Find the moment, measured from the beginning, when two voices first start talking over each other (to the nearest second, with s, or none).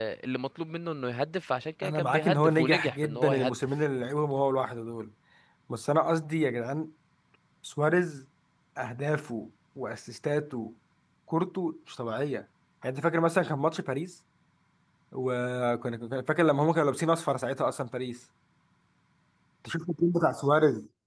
2 s